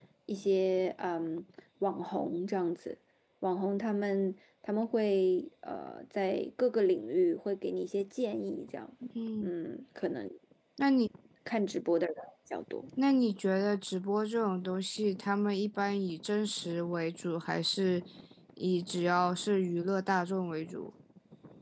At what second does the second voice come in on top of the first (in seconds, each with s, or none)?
none